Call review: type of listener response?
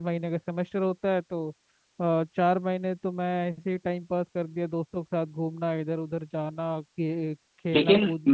taking over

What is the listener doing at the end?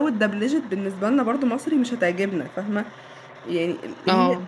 listening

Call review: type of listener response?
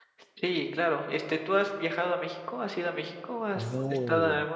taking over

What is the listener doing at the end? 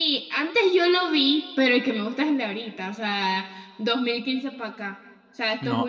taking over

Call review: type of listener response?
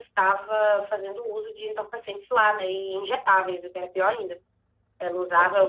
listening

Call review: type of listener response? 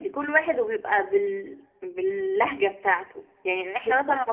listening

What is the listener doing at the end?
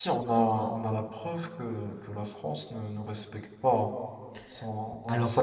listening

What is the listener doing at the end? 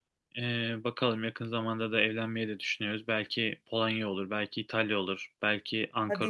taking over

